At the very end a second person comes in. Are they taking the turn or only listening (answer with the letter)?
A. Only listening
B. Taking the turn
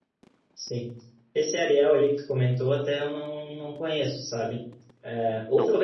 A